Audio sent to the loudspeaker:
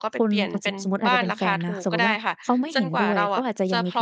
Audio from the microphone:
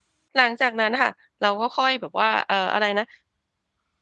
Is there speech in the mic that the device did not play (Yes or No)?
Yes